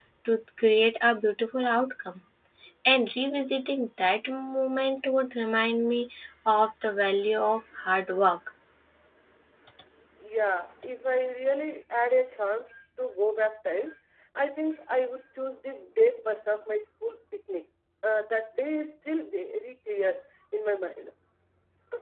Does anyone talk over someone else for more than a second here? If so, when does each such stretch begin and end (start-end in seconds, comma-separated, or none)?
none